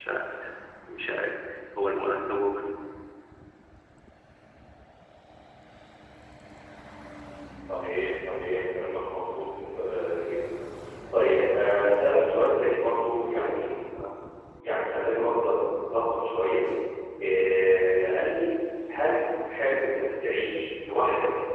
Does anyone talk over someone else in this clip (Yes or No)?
No